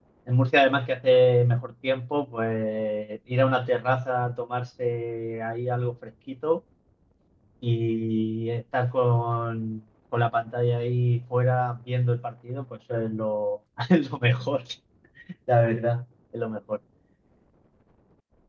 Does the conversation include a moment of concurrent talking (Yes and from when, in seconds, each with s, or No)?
No